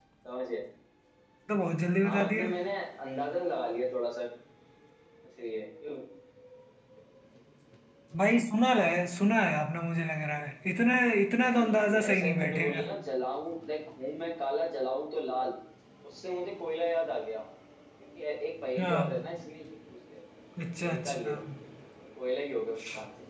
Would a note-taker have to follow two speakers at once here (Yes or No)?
Yes